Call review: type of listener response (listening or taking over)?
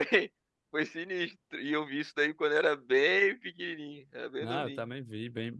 taking over